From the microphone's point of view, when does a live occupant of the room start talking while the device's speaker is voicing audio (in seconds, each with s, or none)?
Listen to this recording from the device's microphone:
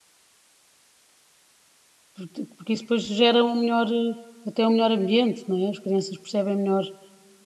2.1 s